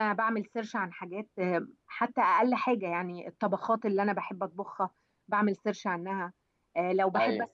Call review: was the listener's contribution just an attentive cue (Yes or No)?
Yes